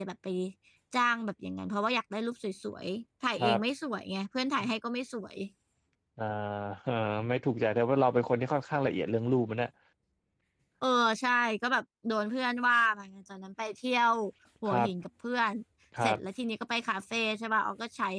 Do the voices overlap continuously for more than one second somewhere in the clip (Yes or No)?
No